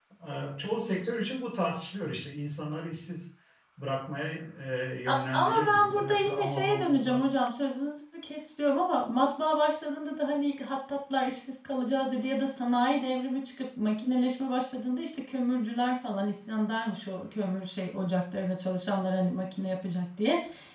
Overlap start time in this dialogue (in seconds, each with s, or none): 5.1 s